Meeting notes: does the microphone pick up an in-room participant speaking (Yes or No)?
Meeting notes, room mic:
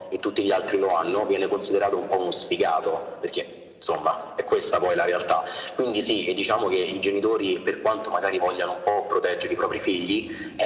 No